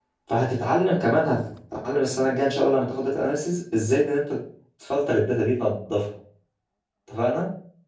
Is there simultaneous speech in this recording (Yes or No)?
No